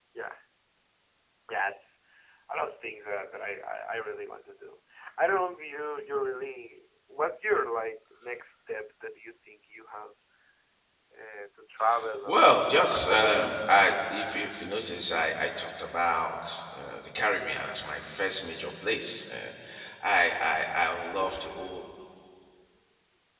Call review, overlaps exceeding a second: present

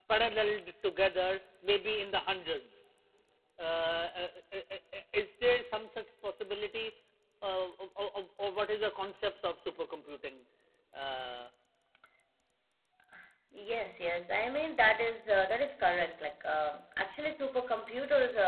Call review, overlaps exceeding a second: none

